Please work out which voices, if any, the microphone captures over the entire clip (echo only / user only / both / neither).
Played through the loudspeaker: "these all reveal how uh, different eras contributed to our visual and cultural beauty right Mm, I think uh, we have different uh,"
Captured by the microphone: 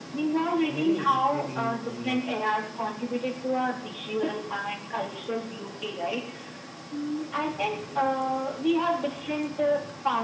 both